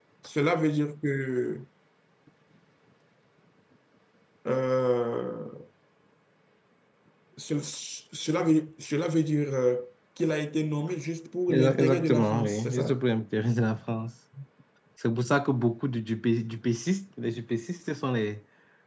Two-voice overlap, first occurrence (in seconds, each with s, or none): 11.5 s